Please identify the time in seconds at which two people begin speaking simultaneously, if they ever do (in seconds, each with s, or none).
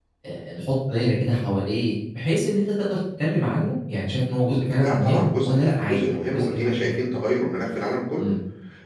4.8 s